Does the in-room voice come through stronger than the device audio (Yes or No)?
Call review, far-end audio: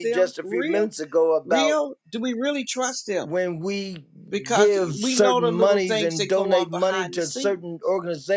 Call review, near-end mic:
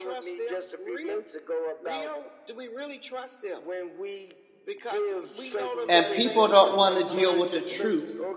Yes